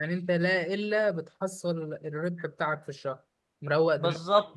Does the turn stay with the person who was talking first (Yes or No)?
No